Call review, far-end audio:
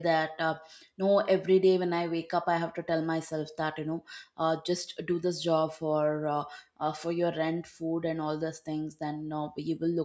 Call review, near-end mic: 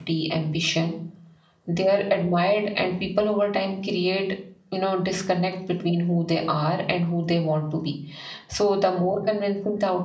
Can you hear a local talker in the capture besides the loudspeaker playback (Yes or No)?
Yes